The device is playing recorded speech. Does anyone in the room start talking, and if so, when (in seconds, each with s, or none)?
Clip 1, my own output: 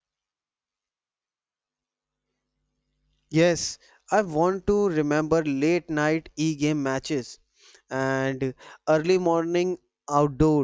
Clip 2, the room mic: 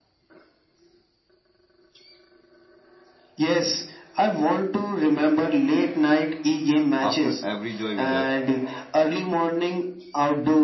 7.0 s